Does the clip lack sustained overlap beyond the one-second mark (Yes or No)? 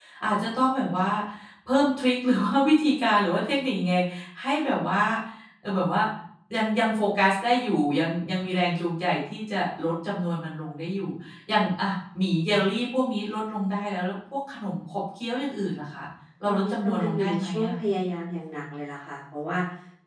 No